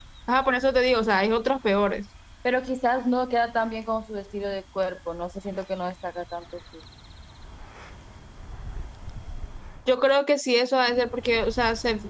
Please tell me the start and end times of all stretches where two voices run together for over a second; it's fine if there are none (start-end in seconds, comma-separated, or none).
none